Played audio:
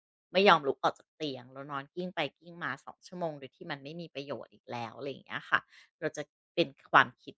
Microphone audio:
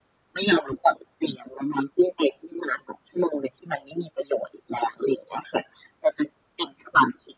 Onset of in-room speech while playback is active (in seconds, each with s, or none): none